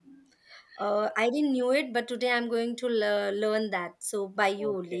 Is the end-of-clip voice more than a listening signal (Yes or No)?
Yes